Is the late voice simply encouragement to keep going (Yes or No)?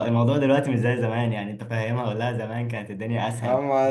No